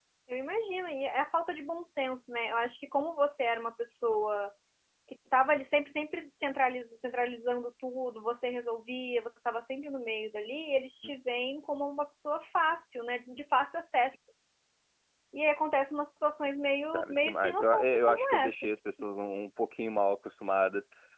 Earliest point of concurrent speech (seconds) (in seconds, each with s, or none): 16.9 s